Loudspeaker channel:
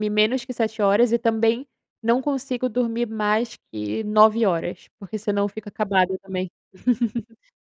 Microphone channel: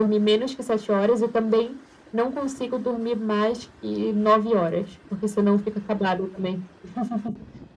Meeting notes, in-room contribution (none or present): none